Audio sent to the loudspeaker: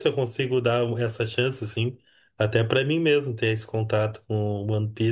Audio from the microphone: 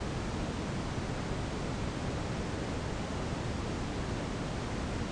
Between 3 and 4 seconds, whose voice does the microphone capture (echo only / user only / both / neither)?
neither